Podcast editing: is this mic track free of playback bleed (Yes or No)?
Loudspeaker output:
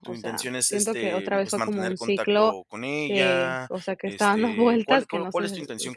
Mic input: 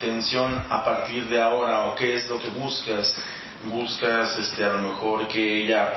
Yes